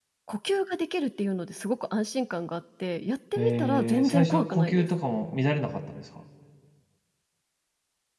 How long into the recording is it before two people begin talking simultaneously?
3.4 s

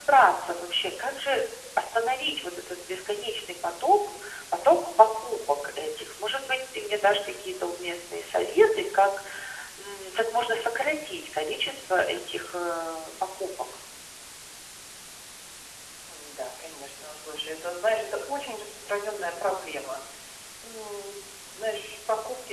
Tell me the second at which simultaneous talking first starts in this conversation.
none

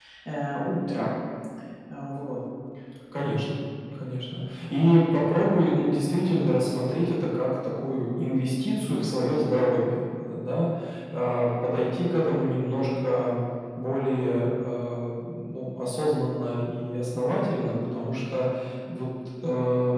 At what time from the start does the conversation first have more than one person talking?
none

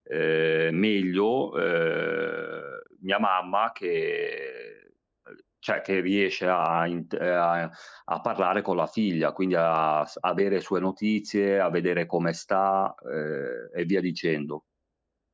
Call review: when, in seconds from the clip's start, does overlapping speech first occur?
none

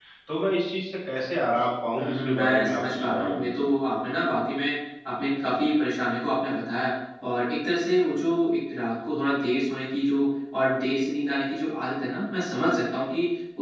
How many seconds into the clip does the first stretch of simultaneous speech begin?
1.9 s

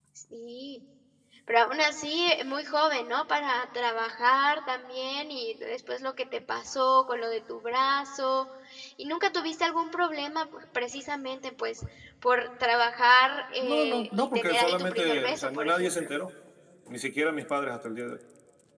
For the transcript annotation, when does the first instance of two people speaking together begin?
13.6 s

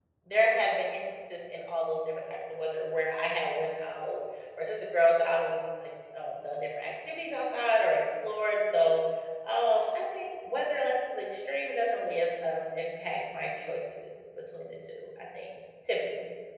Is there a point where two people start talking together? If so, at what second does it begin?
none

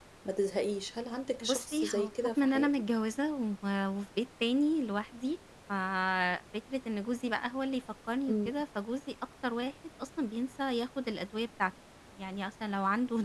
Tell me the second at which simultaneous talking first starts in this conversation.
1.4 s

